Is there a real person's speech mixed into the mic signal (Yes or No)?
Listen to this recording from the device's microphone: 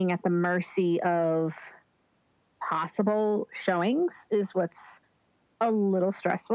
No